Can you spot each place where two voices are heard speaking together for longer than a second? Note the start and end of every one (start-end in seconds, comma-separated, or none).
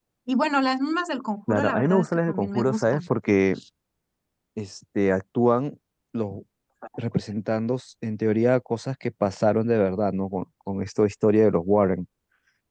1.5-3.0